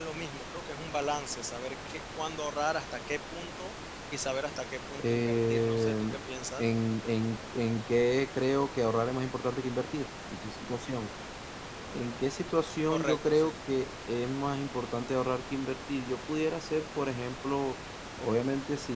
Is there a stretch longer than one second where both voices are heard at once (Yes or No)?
Yes